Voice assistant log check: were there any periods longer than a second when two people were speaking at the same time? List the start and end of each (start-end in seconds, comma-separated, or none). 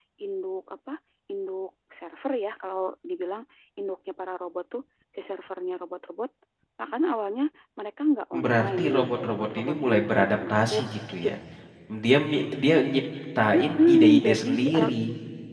8.4-10.8, 13.6-14.9